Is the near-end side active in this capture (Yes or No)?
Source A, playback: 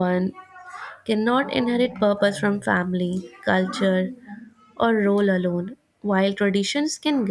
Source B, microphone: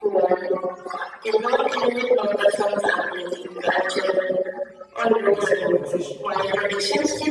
Yes